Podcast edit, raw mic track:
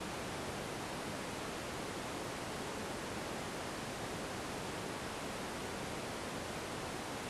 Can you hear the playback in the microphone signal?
No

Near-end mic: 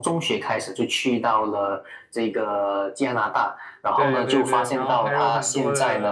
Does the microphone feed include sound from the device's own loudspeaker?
Yes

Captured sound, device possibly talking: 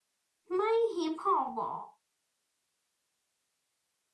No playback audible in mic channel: Yes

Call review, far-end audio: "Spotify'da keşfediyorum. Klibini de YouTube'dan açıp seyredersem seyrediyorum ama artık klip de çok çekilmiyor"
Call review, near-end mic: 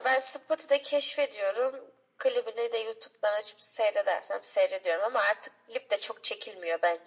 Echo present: Yes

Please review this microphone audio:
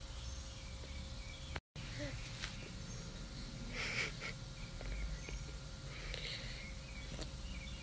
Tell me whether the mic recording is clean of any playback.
Yes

